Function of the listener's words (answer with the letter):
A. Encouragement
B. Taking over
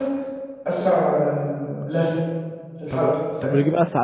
B